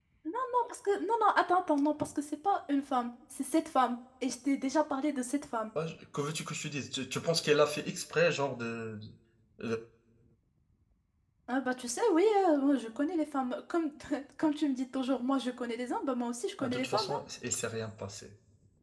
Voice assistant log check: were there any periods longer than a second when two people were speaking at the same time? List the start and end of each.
none

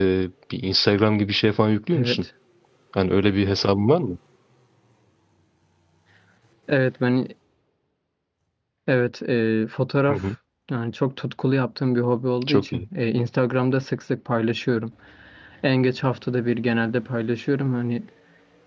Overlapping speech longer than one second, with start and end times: none

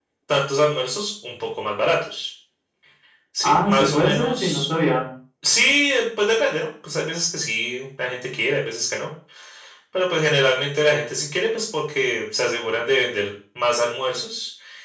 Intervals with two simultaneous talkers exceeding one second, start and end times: 3.4-4.7

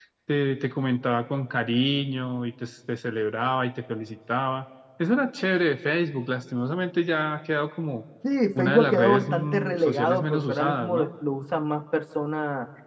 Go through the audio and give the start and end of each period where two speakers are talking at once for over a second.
8.6-11.1

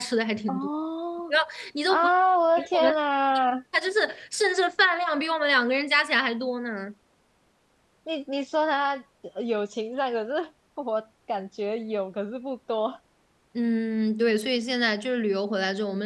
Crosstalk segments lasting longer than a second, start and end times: none

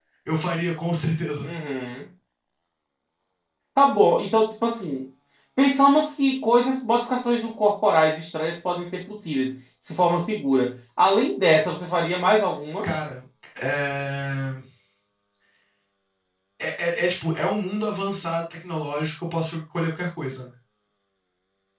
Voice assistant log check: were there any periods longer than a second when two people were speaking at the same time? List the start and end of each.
none

